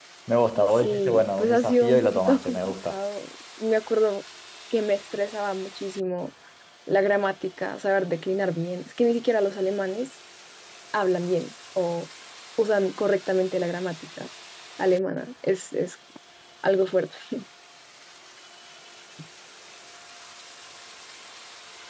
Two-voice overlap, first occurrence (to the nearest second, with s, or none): 1 s